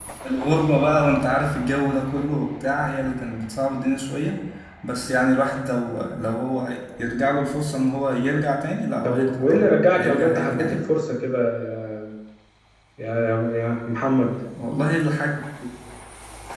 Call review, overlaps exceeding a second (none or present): present